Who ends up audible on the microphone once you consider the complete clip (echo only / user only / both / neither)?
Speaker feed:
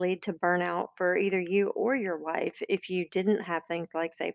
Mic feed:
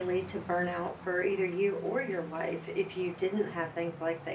echo only